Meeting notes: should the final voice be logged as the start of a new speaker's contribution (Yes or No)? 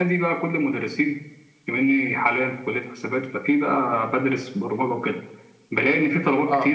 No